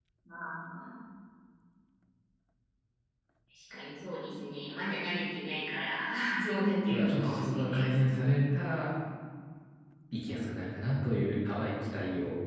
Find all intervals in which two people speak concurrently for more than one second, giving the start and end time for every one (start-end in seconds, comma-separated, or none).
6.9-8.2